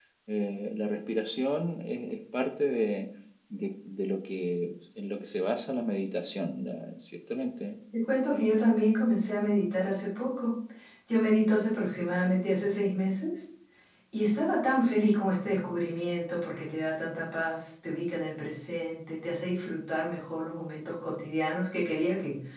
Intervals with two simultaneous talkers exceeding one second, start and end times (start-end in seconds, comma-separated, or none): none